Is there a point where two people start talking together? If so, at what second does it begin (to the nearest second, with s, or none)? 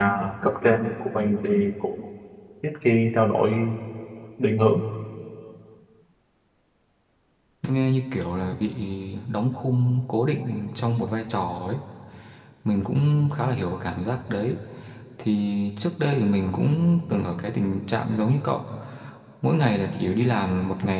none